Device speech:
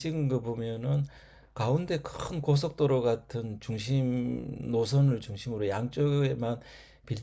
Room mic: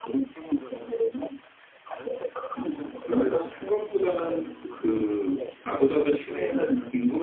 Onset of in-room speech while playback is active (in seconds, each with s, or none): 2.6 s